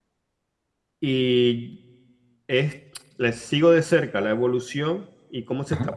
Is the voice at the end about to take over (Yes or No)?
No